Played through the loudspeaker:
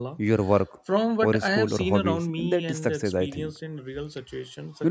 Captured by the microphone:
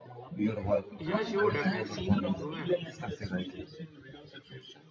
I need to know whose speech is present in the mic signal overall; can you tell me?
both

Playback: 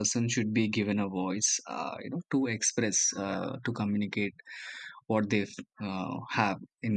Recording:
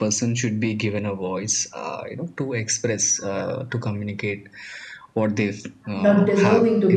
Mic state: both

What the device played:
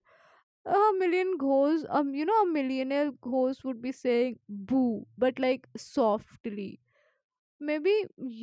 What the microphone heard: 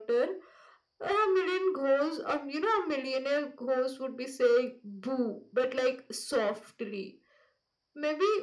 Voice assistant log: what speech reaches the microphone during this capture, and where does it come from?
echo only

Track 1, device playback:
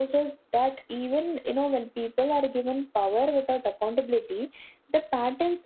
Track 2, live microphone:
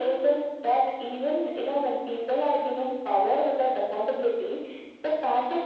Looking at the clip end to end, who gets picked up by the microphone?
echo only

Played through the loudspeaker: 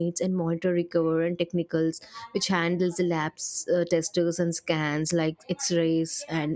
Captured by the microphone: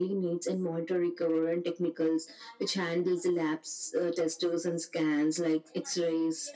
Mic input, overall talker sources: echo only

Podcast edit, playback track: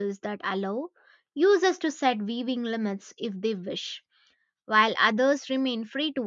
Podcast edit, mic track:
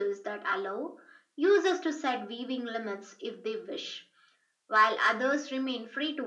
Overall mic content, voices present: echo only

